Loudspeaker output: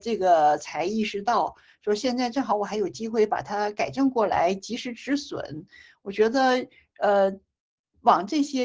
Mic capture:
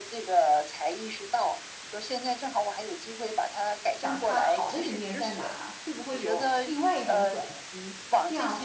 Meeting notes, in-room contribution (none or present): present